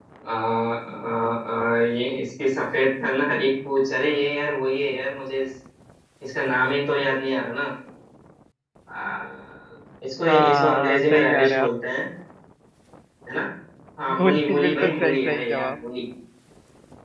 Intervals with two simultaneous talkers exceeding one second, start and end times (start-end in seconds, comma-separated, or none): 10.3-11.7, 14.2-15.8